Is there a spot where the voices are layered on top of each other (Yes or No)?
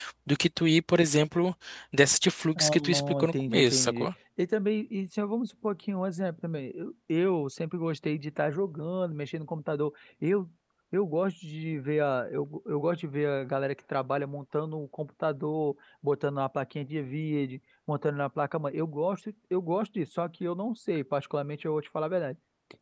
Yes